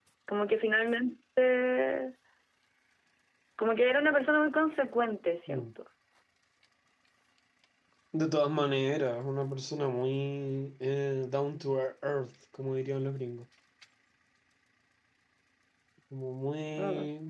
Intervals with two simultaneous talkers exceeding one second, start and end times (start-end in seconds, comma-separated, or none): none